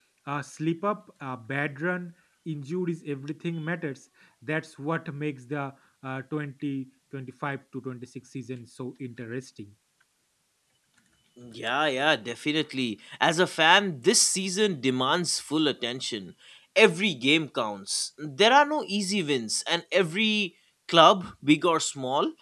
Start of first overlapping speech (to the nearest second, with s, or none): none